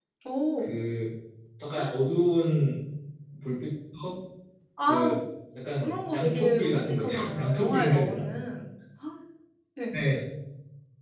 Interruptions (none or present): present